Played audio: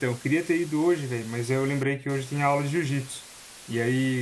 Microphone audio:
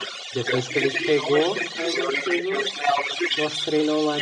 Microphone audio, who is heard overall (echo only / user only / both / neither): both